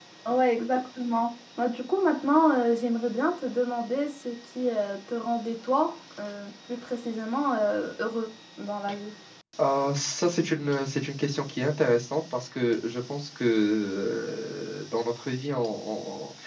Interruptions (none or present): none